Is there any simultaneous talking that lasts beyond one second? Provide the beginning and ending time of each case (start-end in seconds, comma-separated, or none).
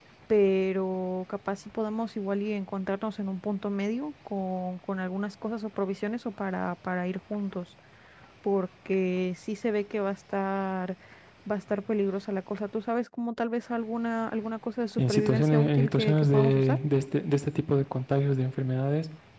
15.0-16.8